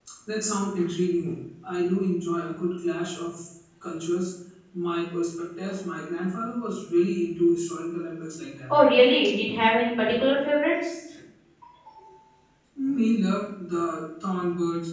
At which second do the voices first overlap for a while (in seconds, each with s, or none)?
none